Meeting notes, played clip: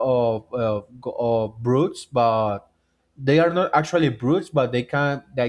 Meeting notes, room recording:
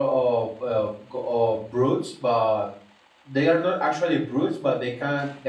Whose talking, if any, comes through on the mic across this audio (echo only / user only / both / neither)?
echo only